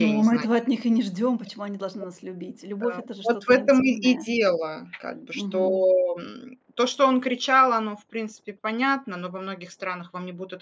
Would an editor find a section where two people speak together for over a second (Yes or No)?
Yes